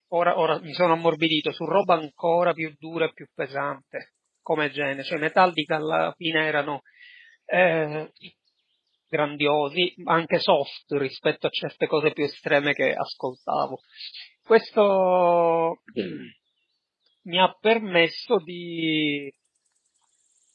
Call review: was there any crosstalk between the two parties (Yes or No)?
No